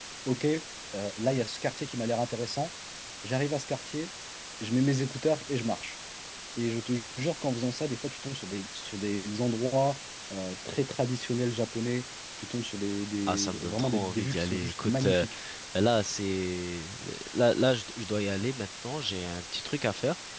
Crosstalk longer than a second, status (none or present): present